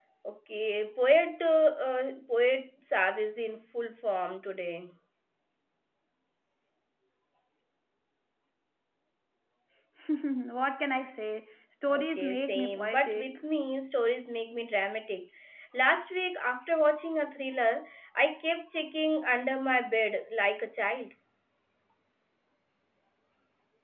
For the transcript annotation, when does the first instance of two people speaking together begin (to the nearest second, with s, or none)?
12 s